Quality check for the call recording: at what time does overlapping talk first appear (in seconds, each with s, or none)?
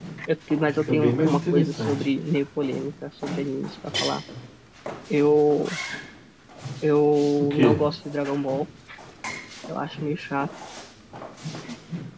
0.7 s